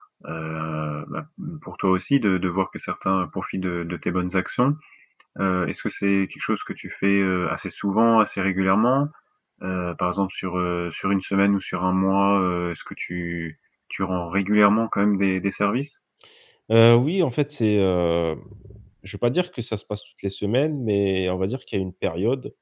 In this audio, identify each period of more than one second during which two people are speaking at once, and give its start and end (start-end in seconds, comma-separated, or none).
none